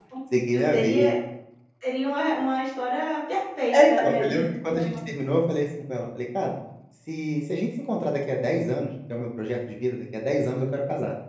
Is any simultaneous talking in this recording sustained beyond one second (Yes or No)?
Yes